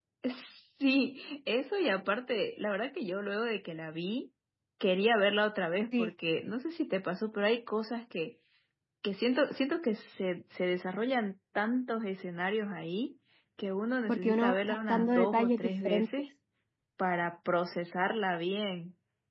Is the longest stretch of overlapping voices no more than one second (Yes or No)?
No